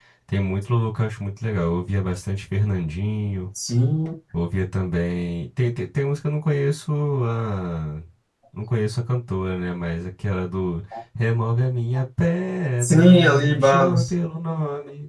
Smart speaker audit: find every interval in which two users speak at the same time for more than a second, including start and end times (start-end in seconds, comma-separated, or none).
12.8-14.1